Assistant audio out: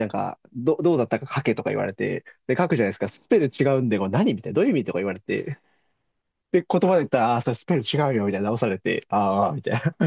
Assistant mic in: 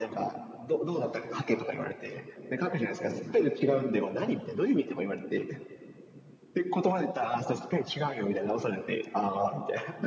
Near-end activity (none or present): none